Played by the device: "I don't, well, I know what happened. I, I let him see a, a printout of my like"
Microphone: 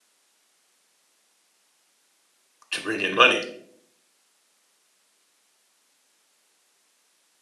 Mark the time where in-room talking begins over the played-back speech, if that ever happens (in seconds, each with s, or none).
2.7 s